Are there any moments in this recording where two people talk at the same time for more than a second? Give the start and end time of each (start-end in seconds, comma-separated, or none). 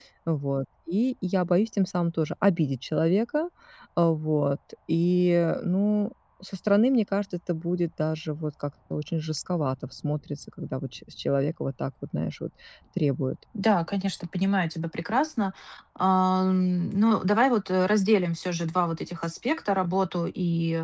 none